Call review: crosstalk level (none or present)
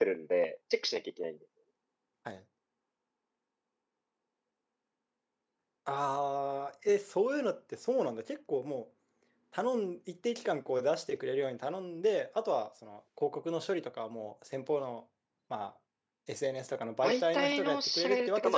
present